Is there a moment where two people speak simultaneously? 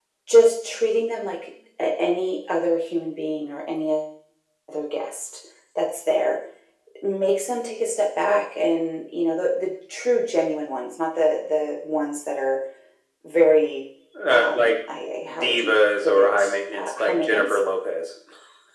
Yes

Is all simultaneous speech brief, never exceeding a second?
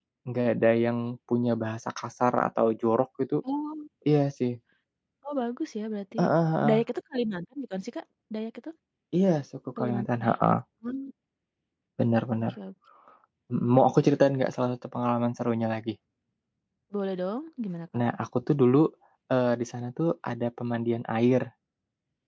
Yes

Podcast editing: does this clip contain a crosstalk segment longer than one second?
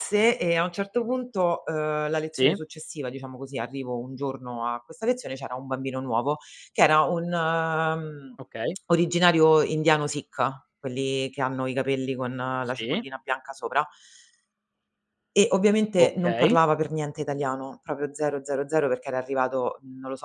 No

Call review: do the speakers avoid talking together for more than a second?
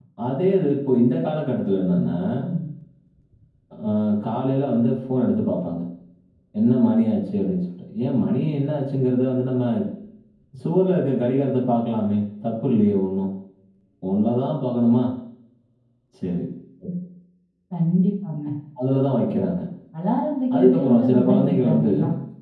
No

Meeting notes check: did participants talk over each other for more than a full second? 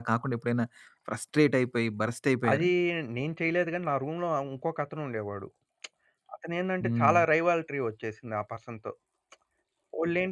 No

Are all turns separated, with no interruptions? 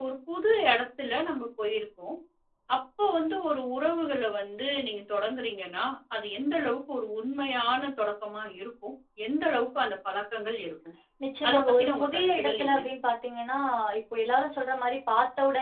No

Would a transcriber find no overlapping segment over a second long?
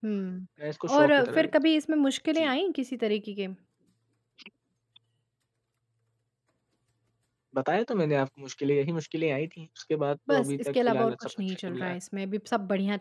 No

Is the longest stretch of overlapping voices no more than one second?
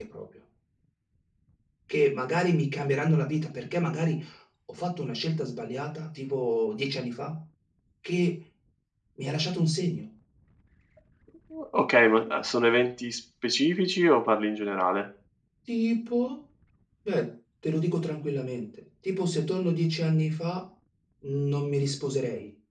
Yes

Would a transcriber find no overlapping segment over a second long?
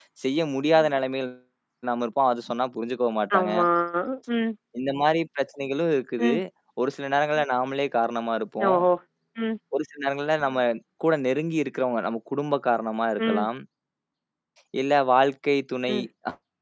Yes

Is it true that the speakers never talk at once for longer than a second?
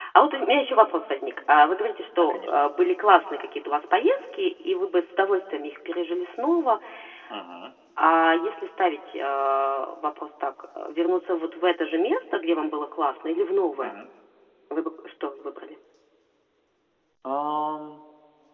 Yes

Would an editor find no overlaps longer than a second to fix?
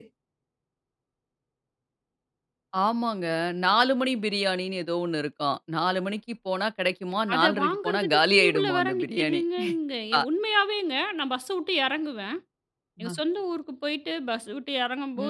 No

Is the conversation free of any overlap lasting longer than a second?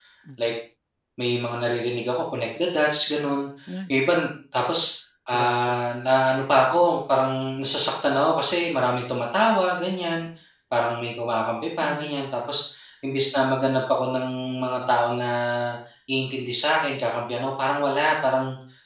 Yes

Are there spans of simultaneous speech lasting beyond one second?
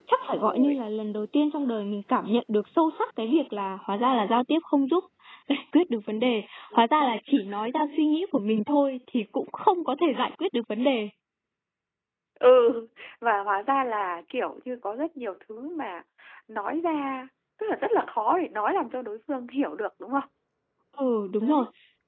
No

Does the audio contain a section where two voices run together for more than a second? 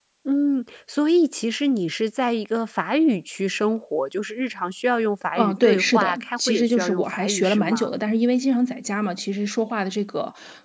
Yes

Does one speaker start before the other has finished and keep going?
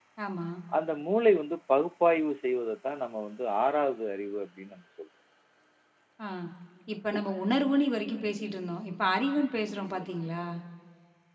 No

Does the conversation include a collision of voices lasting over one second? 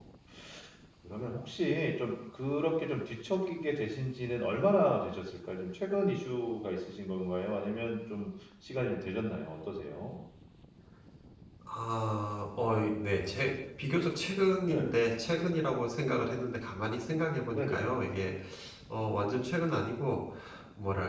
No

